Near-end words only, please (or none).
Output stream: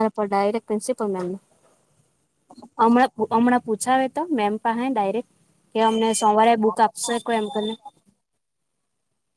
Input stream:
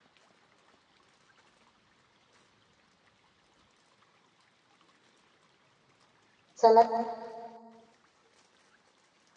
સલાહ